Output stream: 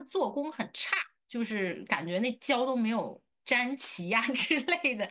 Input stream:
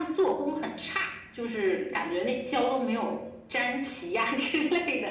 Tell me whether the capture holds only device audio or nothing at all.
Yes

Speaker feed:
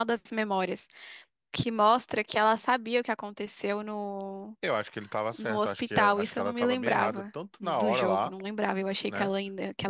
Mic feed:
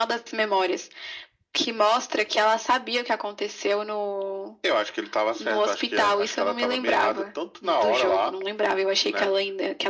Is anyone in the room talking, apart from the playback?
No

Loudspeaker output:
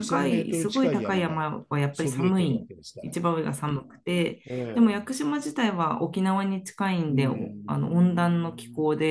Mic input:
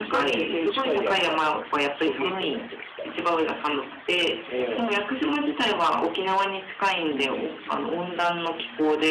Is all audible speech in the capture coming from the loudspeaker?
Yes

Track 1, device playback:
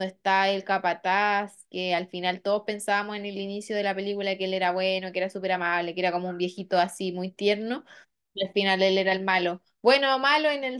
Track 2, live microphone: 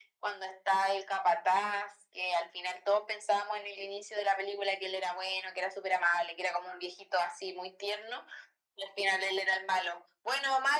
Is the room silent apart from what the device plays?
Yes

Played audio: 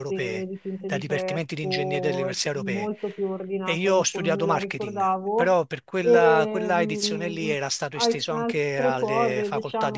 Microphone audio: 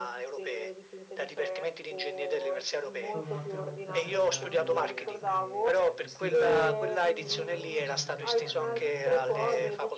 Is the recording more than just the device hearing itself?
Yes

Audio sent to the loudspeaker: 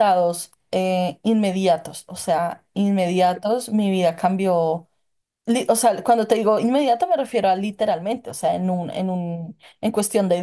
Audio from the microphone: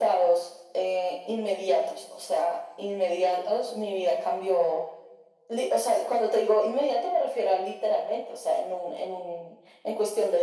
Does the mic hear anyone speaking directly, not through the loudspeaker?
No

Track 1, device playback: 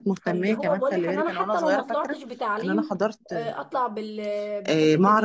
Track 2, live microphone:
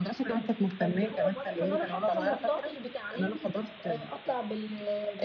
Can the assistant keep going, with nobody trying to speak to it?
Yes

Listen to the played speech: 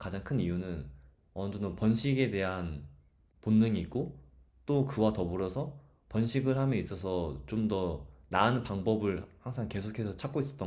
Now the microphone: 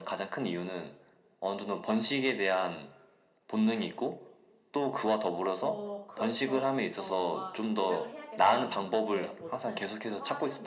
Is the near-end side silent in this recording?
No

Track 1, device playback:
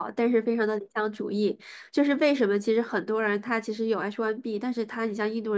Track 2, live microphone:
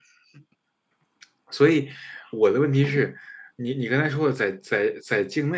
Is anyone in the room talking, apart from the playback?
Yes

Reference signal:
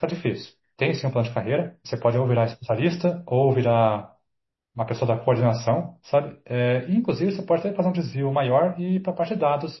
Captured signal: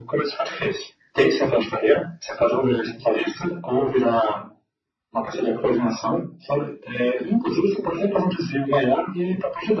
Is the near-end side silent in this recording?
Yes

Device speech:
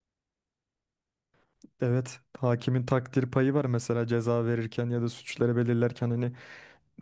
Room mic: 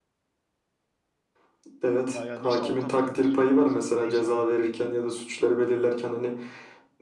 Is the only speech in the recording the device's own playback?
No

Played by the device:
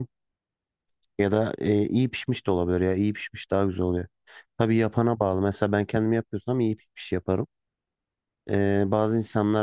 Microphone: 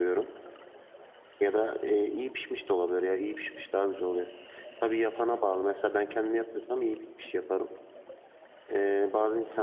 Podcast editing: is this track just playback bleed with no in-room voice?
Yes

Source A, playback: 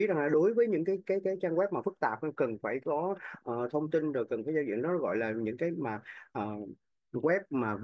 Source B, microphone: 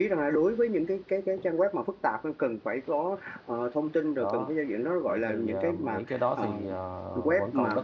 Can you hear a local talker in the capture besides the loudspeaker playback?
Yes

